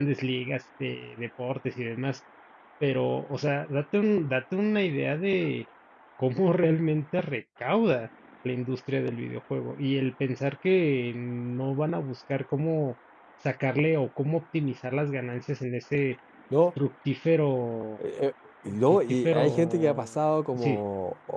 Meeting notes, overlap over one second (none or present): present